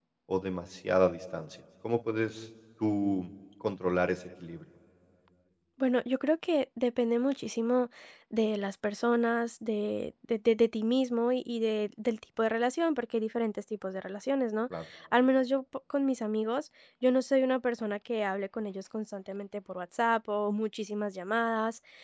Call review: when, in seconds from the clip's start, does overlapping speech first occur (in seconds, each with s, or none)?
none